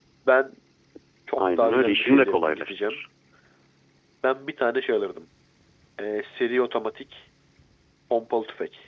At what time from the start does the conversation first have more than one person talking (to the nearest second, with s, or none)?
1 s